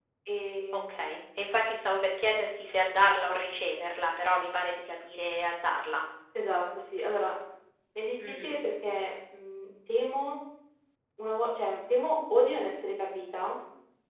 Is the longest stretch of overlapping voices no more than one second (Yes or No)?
Yes